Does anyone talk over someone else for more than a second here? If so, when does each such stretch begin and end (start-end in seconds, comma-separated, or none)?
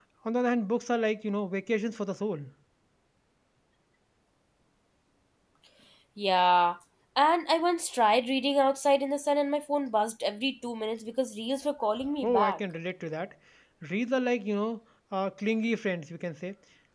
none